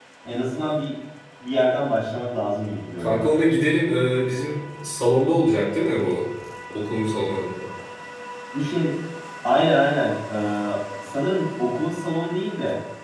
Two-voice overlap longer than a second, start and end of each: none

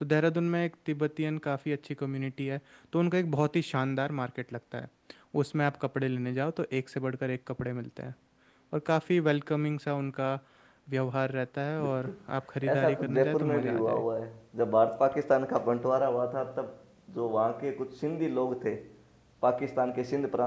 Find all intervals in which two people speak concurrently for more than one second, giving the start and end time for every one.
12.7-14.0

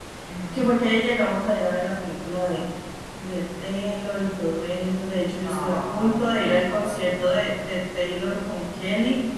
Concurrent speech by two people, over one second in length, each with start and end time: 5.3-7.5

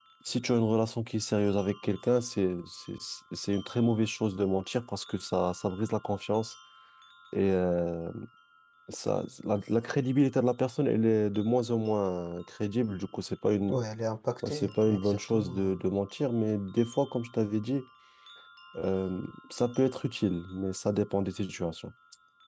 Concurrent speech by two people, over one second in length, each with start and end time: 14.4-15.8

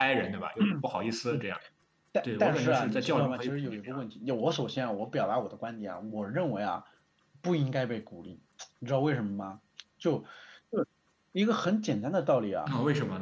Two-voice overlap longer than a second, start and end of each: 2.2-4.0

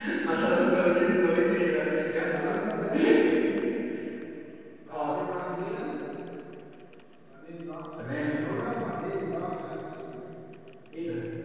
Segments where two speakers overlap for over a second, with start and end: none

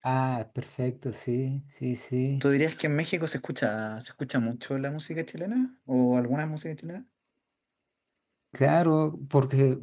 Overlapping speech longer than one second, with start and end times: none

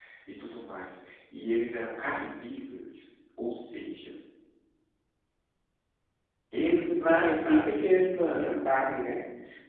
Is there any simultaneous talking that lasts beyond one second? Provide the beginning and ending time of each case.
6.6-8.6

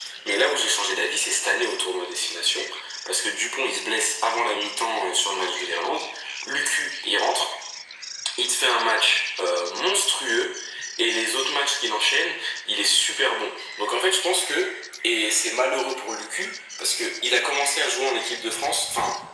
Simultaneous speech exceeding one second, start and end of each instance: none

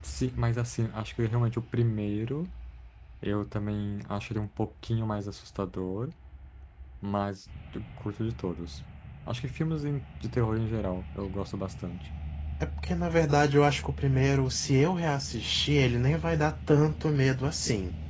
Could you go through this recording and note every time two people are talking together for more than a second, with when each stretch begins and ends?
none

